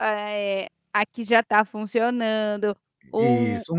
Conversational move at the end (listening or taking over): listening